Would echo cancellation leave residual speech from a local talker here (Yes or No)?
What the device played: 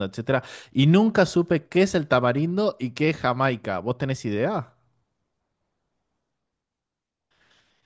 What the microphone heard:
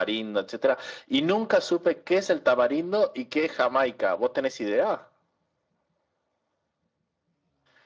No